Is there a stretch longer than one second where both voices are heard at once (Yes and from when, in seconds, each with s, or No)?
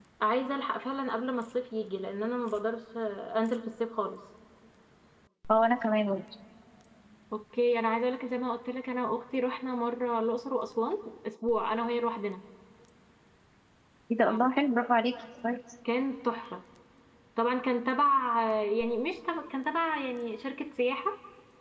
No